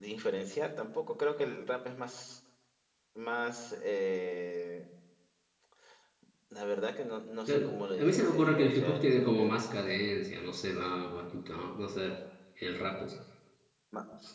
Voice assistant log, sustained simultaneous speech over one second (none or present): present